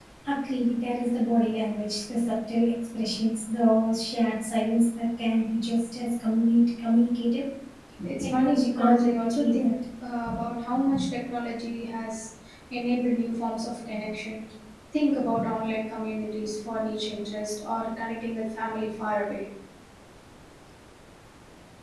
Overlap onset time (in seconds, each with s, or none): 8.2 s